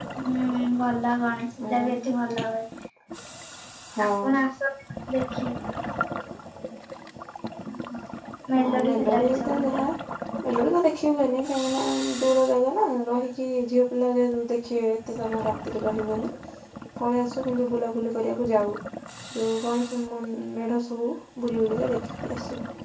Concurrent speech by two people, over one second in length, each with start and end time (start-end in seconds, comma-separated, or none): 8.6-9.8